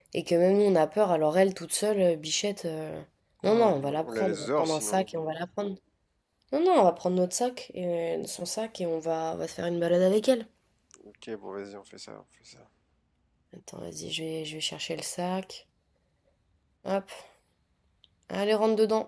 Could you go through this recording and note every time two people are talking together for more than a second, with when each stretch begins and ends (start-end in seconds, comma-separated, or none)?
3.4-5.0